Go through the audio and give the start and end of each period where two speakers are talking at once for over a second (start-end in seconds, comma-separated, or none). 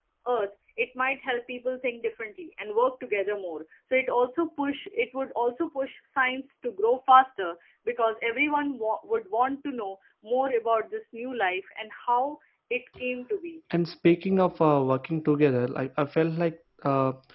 none